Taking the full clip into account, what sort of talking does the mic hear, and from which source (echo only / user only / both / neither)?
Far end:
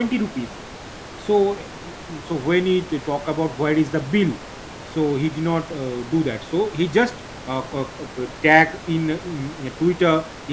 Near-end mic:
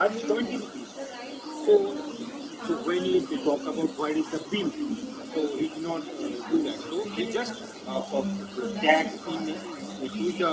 both